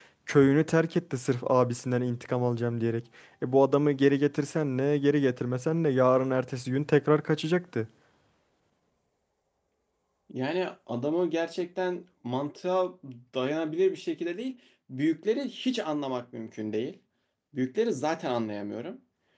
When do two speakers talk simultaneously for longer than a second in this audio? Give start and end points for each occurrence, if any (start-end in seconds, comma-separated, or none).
none